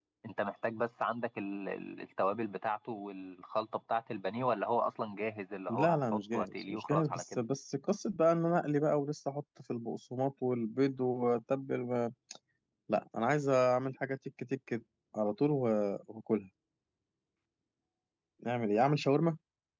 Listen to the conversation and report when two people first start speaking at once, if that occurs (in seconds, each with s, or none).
5.7 s